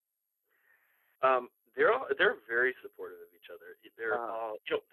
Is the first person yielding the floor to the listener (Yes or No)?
No